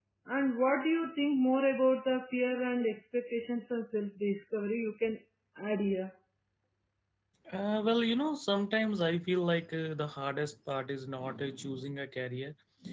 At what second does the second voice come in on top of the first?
none

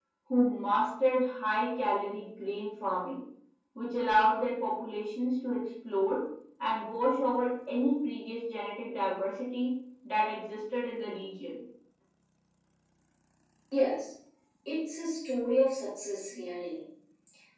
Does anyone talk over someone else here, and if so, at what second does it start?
none

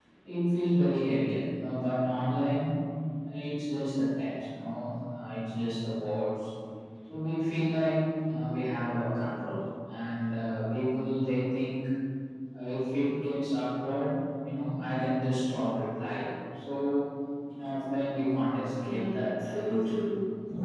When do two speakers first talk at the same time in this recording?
19 s

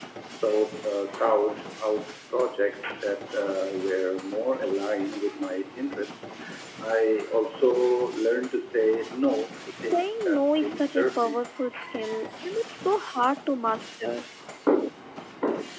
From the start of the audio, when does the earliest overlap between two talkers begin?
10 s

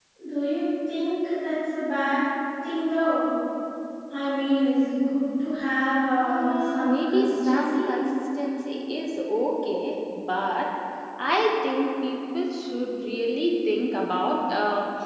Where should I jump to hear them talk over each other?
6 s

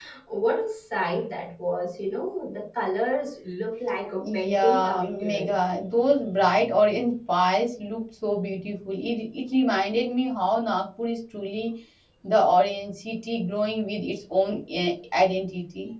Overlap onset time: 4 s

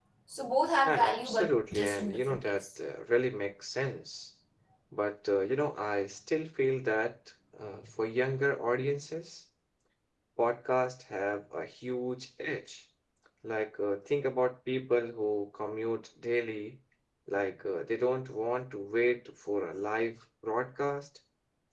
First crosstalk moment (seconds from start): 1 s

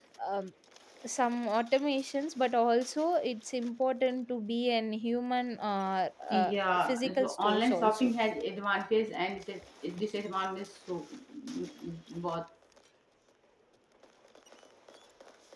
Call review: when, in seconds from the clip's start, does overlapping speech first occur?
6 s

